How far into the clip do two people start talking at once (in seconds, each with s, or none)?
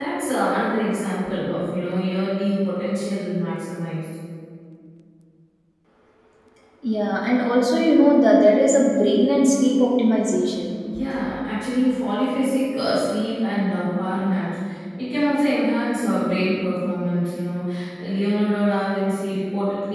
none